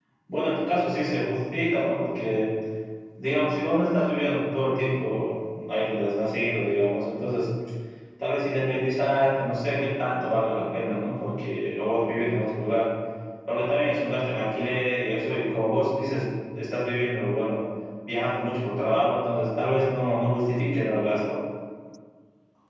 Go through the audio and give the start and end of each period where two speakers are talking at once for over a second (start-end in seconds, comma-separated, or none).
none